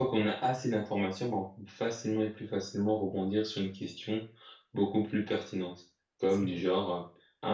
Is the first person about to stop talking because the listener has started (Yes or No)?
No